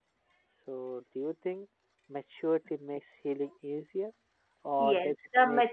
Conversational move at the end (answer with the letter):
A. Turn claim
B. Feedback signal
A